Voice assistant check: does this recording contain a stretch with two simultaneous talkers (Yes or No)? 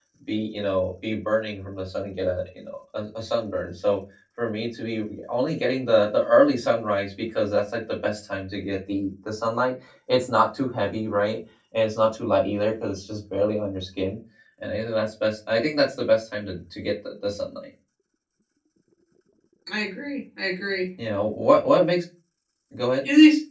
No